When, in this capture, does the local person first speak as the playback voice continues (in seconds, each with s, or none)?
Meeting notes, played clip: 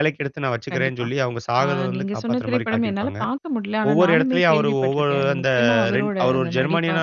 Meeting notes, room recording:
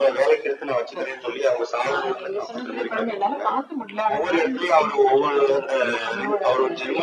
none